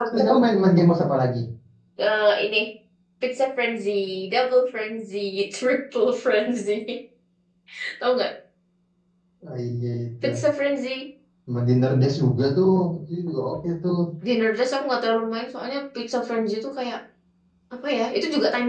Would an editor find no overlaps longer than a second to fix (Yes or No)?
Yes